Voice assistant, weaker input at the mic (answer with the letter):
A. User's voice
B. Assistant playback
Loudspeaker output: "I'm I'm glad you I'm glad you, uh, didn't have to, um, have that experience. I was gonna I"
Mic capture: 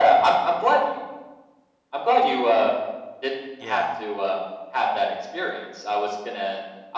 A